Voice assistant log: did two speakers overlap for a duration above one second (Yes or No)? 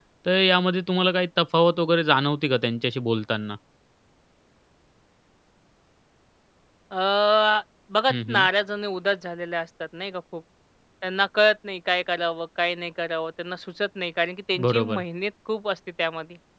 No